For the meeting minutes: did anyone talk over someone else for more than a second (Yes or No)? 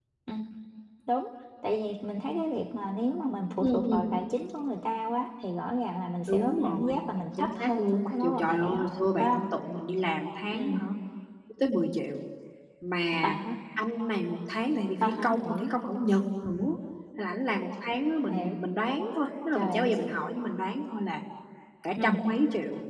Yes